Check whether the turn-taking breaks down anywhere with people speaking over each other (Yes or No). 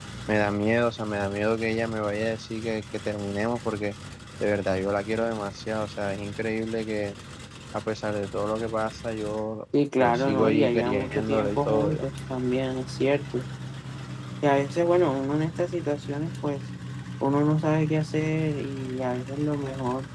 Yes